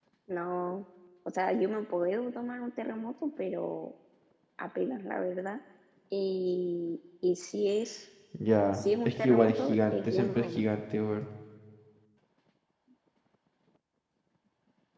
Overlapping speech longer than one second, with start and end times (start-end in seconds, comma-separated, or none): 8.7-10.6